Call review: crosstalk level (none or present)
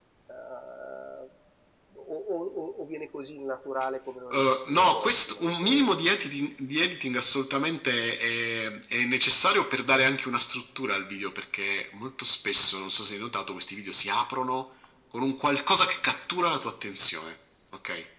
present